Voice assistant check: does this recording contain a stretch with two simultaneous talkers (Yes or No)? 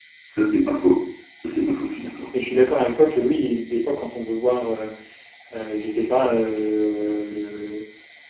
No